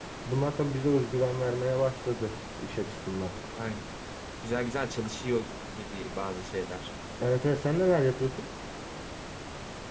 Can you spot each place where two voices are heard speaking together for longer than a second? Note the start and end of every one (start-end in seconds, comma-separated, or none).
none